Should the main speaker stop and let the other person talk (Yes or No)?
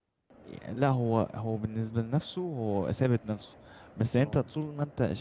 No